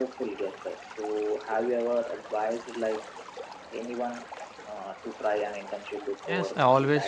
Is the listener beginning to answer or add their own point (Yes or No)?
Yes